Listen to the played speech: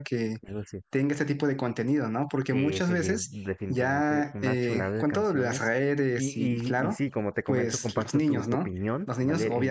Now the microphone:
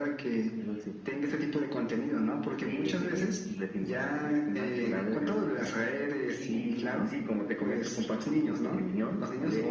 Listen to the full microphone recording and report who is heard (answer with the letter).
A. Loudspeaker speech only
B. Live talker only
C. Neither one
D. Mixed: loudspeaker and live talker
A